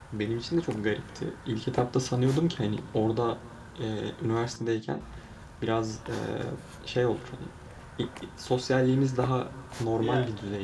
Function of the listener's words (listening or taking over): listening